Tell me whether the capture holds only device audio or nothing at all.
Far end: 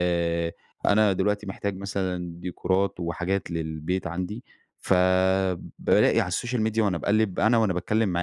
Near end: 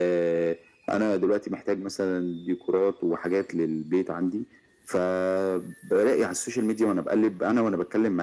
Yes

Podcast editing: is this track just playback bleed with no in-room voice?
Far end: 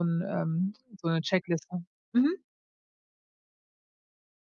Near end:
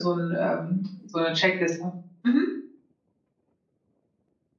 Yes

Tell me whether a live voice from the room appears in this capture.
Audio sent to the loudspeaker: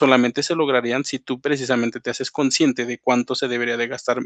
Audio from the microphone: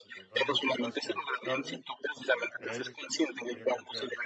Yes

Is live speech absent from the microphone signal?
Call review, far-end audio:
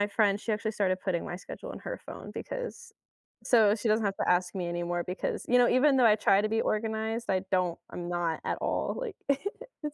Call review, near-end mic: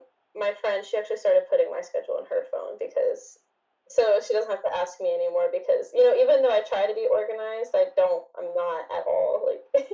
Yes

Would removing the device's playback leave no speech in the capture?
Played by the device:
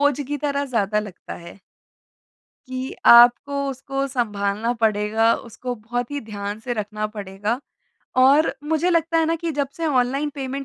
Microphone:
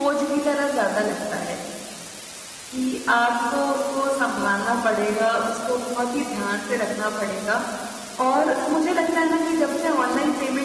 Yes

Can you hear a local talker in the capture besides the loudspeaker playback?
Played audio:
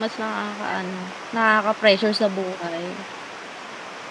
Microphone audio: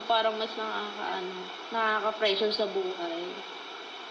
No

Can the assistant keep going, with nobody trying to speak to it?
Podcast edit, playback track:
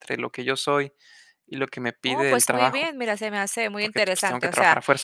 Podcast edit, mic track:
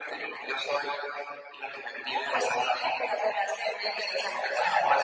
Yes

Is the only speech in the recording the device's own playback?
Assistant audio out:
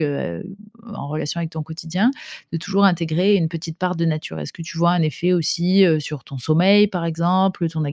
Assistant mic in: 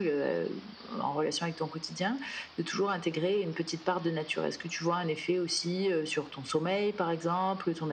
Yes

